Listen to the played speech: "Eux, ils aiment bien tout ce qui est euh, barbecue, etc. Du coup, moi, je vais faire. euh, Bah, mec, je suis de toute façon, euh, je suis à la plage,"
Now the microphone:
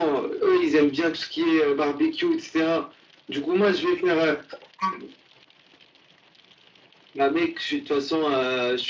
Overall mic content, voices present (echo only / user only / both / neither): echo only